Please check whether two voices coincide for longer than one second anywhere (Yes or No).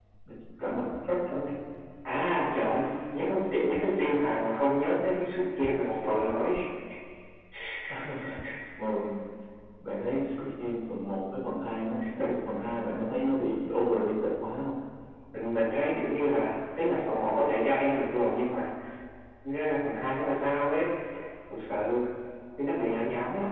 No